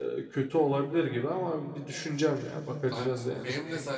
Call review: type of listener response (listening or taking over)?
taking over